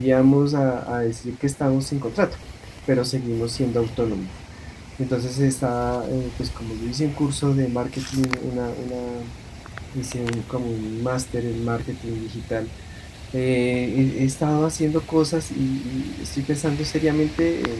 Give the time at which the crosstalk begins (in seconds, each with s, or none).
none